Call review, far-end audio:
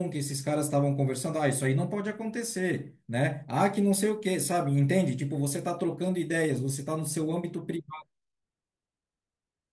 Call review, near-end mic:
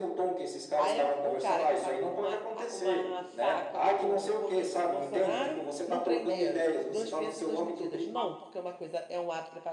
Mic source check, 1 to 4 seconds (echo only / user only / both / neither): both